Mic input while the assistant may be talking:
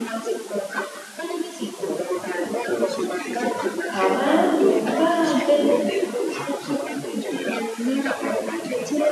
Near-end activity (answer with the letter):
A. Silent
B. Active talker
B